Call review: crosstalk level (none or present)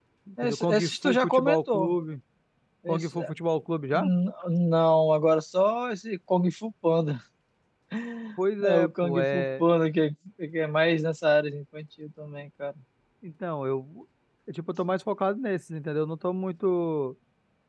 present